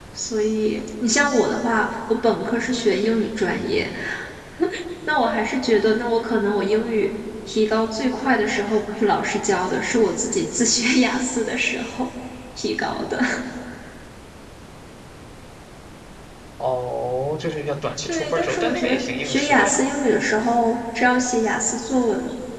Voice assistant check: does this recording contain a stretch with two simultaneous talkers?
Yes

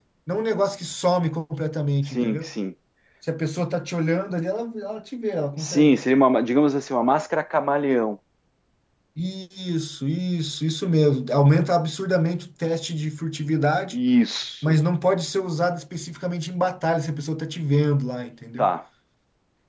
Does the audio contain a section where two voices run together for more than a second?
No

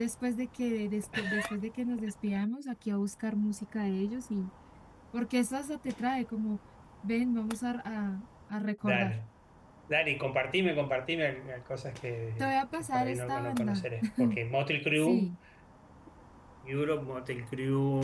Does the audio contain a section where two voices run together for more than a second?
Yes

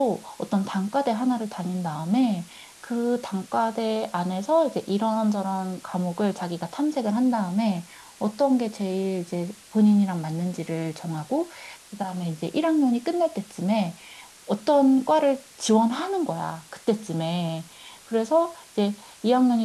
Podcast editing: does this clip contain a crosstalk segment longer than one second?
No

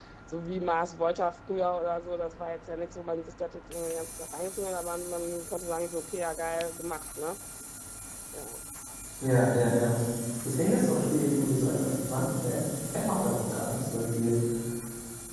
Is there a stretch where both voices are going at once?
No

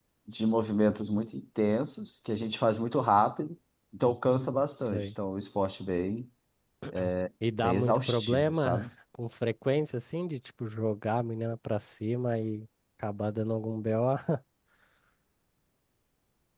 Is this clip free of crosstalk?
No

